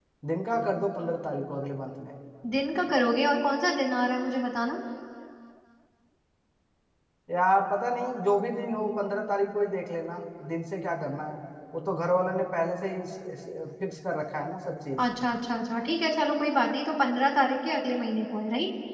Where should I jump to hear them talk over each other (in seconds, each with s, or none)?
none